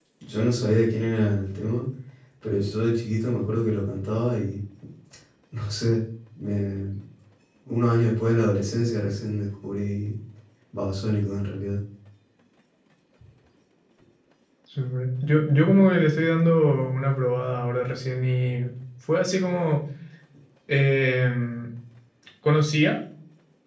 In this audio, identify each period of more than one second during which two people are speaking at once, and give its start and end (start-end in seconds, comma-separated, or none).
none